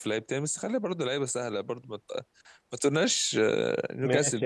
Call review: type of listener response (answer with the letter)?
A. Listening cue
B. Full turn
B